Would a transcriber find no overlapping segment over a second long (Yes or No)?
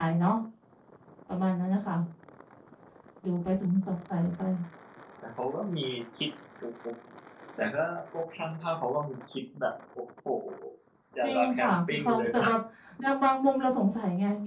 No